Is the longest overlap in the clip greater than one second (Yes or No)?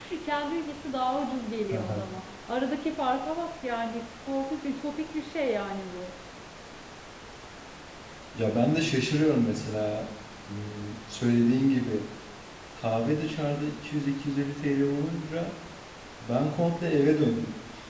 No